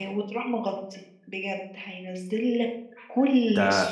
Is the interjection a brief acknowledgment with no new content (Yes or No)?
No